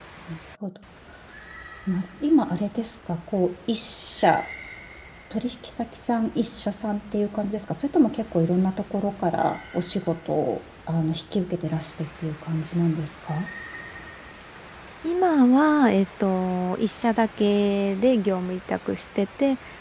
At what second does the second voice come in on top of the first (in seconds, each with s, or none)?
none